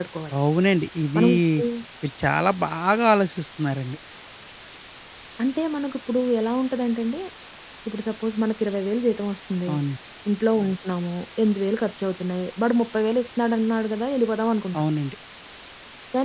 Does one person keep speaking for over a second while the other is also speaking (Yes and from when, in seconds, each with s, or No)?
No